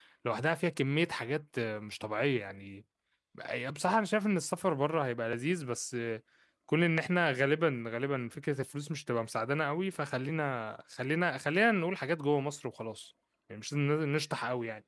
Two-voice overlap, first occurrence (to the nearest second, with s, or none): none